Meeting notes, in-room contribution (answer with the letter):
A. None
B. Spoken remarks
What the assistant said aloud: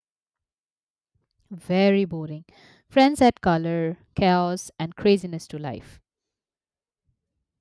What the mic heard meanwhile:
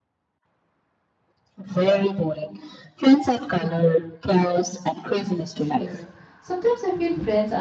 B